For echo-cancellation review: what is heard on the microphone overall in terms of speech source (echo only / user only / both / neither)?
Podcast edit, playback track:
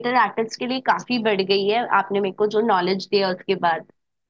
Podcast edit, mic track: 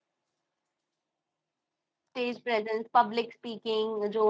user only